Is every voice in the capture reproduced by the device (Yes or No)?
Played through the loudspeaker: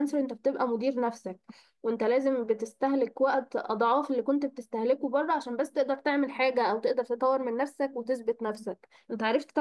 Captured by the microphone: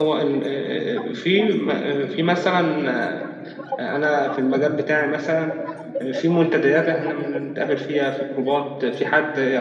No